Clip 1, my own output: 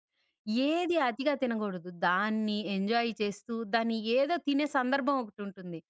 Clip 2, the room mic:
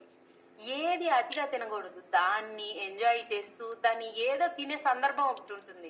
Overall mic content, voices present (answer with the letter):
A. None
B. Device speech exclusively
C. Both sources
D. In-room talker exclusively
B